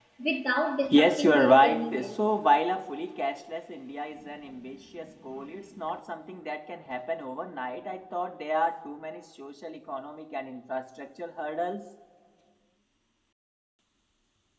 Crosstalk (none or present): present